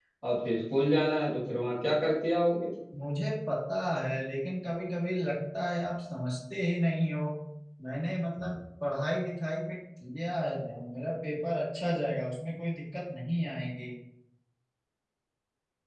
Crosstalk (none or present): none